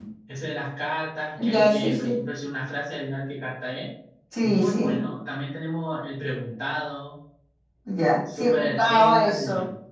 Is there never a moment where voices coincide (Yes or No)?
No